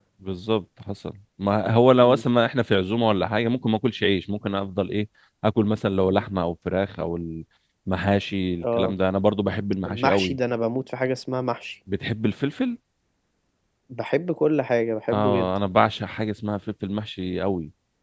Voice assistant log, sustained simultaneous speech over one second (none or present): none